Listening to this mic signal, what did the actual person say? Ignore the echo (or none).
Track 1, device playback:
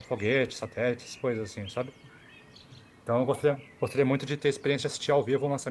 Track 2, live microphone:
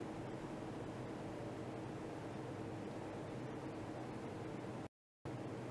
none